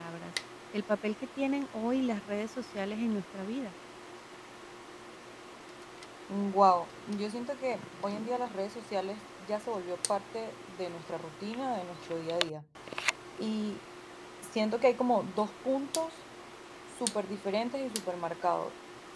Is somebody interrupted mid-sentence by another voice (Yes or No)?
No